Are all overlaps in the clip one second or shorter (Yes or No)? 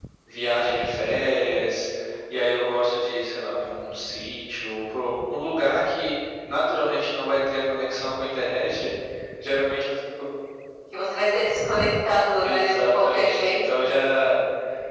No